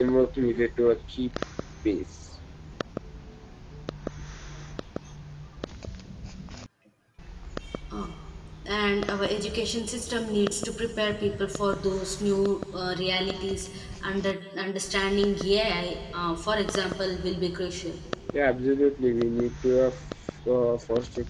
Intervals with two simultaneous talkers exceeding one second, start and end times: none

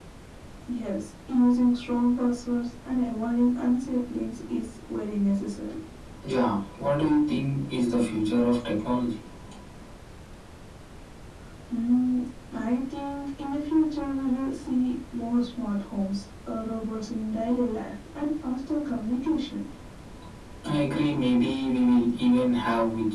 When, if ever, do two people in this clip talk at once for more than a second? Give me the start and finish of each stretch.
none

